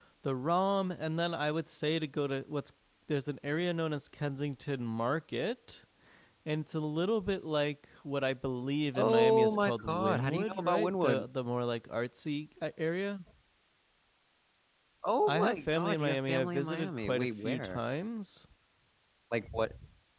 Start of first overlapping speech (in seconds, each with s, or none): 8.9 s